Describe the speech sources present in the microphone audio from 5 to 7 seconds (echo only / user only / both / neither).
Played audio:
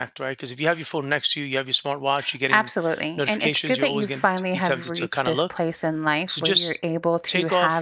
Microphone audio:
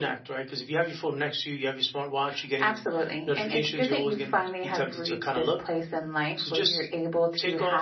echo only